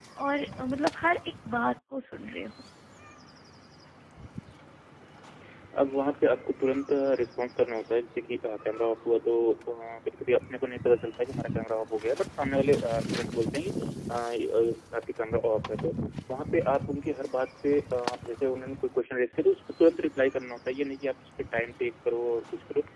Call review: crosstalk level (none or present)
none